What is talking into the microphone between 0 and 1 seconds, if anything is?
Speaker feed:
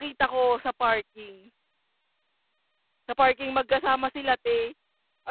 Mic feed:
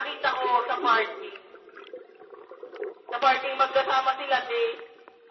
echo only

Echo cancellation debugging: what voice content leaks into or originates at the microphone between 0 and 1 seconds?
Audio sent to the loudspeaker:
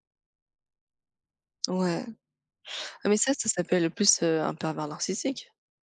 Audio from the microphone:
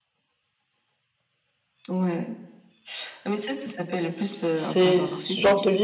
neither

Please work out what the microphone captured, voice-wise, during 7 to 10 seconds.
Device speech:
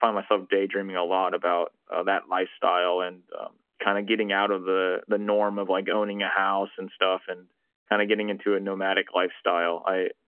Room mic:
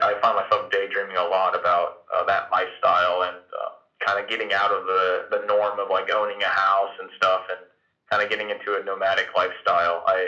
echo only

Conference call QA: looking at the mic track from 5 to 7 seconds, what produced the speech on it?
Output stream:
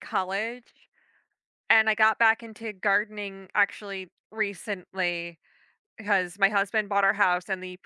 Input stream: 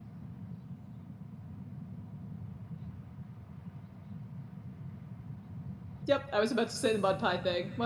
user only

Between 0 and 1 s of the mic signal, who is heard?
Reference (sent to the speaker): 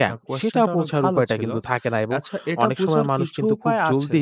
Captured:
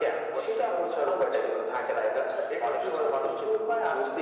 echo only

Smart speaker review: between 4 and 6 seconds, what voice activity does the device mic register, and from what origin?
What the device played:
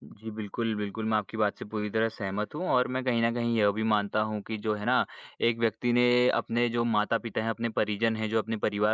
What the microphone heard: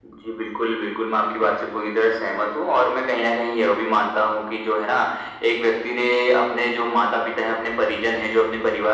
echo only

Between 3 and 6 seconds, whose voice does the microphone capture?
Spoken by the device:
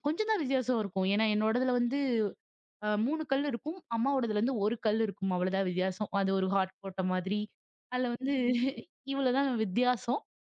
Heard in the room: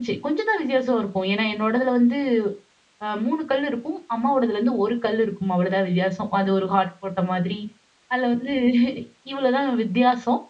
echo only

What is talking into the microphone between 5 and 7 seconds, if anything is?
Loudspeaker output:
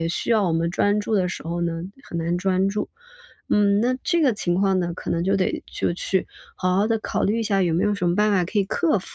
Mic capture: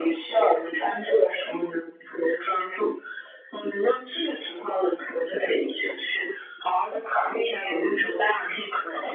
echo only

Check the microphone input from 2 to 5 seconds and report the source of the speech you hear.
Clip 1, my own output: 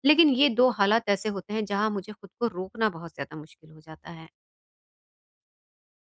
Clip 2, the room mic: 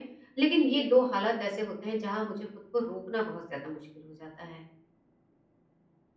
echo only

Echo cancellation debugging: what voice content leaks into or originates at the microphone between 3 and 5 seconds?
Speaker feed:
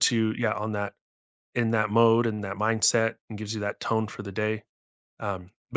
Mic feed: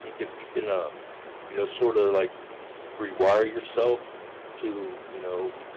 user only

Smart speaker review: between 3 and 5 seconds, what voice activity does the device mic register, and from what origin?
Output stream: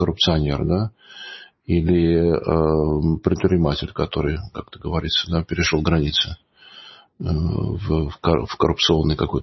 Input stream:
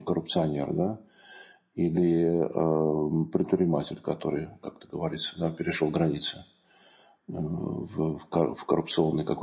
echo only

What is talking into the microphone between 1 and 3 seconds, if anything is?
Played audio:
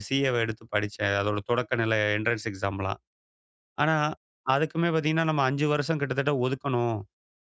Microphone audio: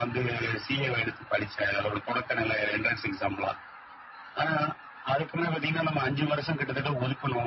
echo only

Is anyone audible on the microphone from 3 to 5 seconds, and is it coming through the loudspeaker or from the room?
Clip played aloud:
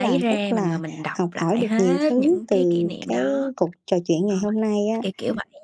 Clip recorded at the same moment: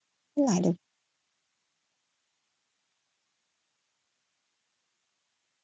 neither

